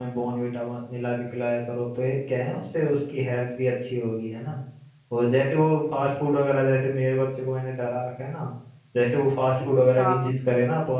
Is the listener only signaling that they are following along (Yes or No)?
Yes